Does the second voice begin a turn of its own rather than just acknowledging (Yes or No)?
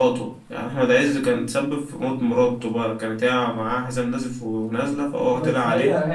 Yes